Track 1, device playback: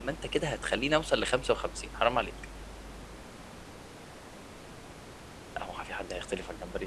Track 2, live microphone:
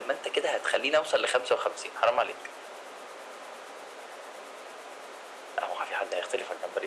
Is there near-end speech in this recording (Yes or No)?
No